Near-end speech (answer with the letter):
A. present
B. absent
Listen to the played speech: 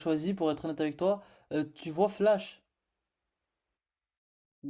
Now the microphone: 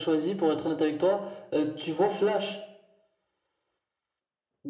B